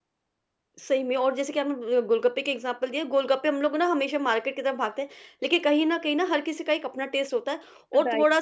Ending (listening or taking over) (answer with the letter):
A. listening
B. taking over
A